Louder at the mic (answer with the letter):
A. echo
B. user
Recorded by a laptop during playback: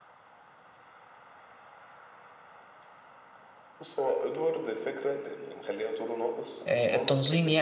B